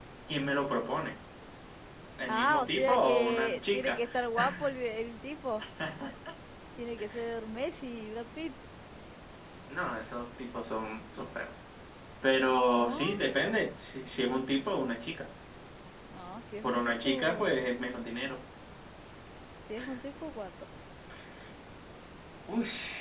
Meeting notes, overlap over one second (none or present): present